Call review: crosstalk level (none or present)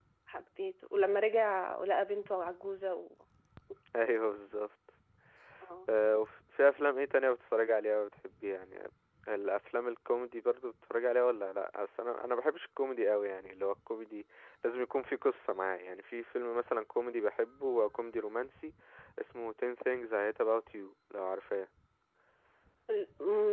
none